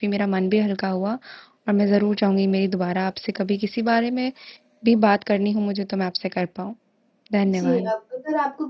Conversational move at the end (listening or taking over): taking over